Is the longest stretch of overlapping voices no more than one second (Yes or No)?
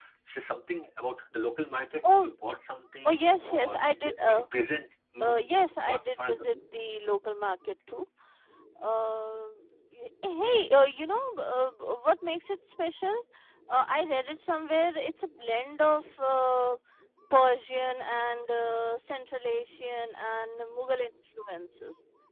No